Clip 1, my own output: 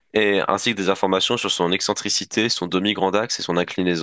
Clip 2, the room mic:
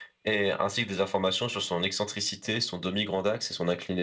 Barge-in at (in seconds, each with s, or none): none